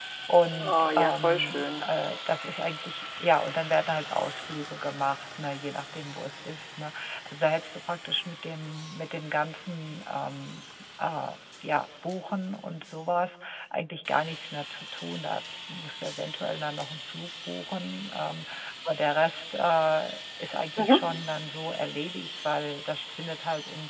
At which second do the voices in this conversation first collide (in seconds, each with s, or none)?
0.6 s